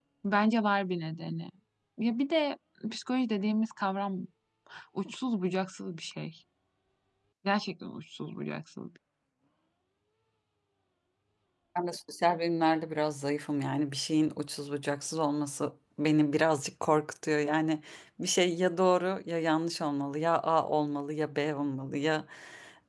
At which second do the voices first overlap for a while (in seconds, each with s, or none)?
none